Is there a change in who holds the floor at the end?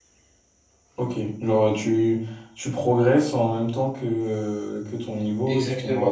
Yes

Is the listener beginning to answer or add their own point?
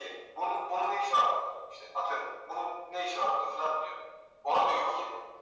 No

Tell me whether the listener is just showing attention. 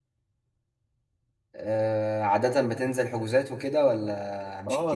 No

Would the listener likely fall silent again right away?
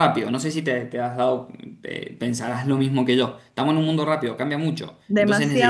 No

